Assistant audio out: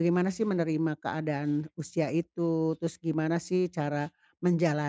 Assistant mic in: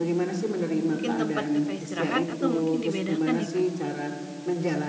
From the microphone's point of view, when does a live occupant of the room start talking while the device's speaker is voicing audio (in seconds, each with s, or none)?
0.9 s